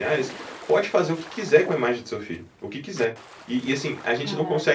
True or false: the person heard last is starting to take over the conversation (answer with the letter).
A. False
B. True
A